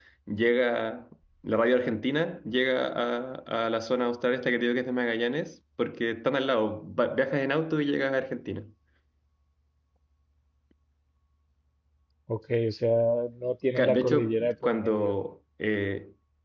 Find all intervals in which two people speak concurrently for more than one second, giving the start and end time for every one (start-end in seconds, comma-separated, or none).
13.8-15.1